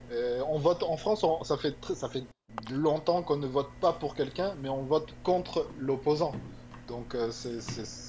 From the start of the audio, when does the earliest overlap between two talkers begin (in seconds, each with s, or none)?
none